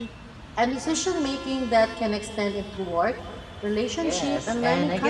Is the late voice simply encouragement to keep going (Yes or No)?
No